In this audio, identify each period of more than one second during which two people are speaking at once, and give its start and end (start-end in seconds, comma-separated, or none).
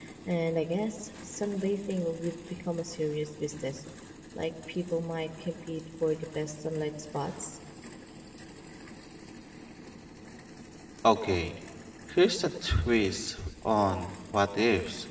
none